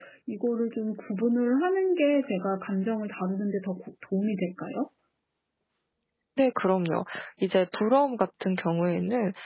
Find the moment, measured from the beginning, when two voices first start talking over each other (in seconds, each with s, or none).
none